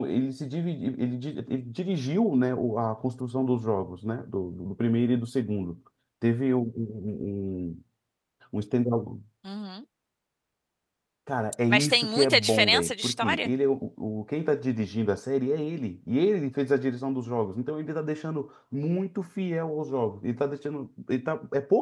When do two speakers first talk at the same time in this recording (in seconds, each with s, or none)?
11.7 s